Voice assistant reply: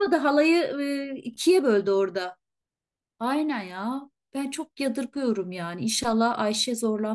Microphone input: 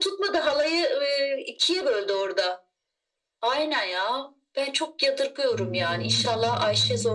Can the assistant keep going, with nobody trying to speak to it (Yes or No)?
No